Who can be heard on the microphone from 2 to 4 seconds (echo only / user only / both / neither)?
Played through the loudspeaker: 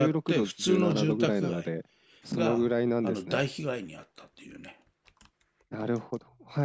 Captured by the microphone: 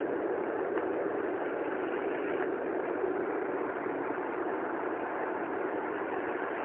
neither